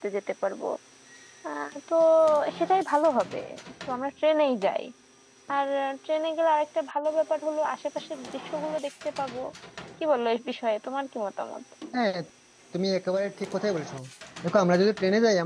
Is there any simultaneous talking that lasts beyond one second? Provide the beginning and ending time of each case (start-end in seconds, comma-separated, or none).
none